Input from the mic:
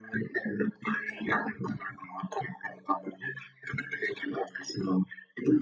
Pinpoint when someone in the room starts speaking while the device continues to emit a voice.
none

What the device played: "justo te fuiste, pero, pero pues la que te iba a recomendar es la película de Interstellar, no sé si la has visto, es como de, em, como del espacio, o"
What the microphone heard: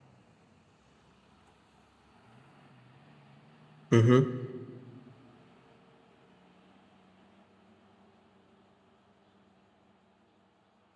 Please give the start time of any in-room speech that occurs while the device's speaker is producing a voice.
4 s

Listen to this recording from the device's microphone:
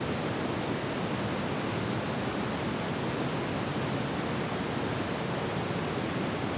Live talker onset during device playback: none

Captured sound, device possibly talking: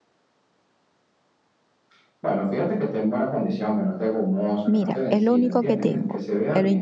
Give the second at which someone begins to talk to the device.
5 s

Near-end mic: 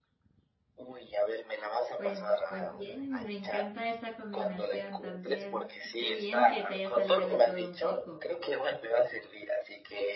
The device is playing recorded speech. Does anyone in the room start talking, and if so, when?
2 s

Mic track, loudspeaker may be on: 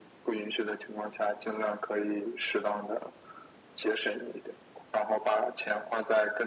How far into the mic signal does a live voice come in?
none

